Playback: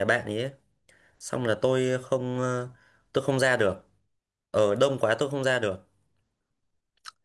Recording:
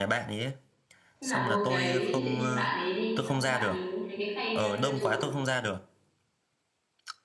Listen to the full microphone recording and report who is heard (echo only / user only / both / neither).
both